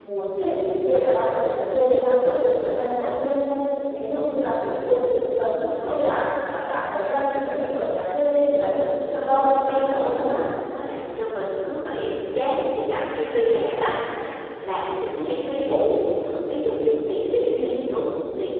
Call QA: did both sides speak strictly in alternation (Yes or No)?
No